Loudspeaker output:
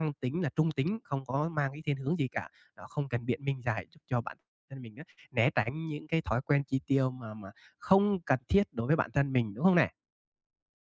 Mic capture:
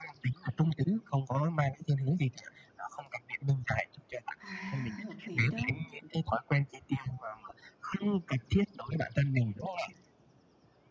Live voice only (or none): à, hợp lý đó.